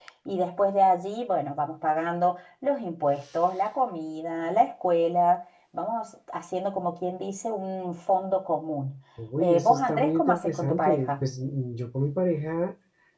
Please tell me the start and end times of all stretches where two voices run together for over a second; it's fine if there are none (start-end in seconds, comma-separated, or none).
9.4-11.2